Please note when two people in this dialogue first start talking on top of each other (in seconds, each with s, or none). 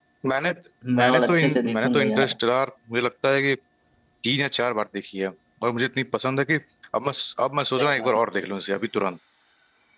1.0 s